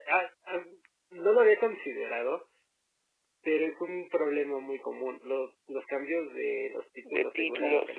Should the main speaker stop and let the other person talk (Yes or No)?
Yes